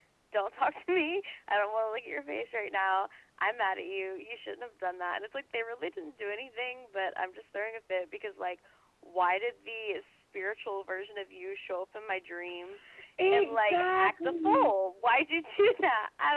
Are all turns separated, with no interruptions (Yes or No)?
No